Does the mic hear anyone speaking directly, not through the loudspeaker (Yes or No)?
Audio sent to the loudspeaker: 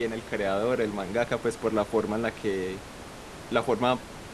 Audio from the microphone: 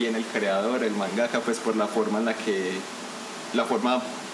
No